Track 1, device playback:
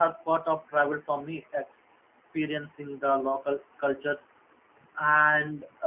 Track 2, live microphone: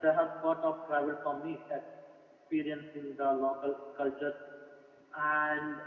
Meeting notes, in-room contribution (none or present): none